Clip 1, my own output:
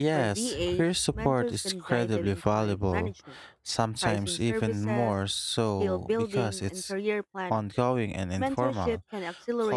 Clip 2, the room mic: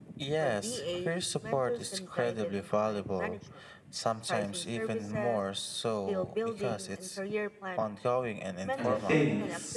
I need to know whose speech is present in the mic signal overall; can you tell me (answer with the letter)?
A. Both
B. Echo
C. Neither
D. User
A